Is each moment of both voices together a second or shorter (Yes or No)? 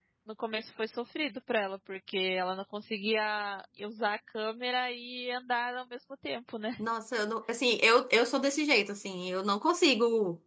Yes